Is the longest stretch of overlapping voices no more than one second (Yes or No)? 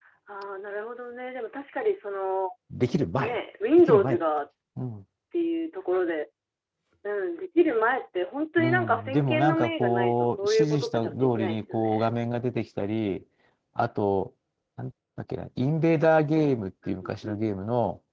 No